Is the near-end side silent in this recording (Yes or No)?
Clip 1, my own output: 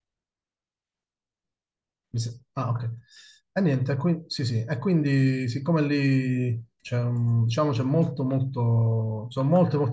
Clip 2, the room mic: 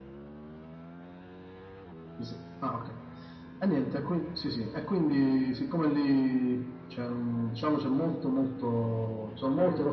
Yes